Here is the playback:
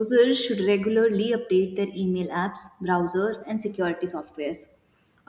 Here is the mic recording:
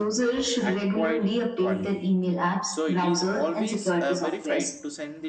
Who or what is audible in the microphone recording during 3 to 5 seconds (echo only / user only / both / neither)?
both